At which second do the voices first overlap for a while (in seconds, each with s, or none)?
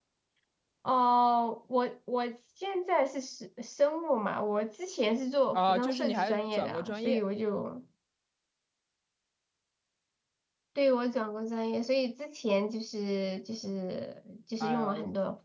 5.5 s